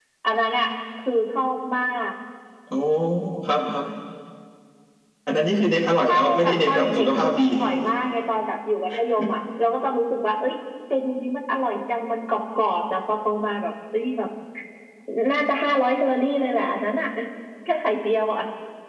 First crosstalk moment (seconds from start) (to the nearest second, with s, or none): 6 s